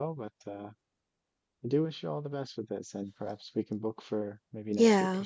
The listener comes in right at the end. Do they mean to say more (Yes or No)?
Yes